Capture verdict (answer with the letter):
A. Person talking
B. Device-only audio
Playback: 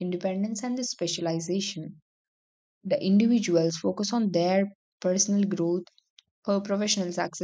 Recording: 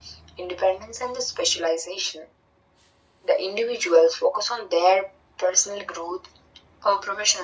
B